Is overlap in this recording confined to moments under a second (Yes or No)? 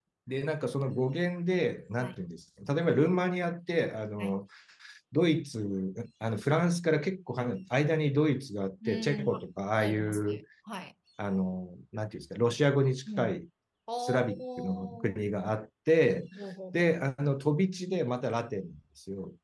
No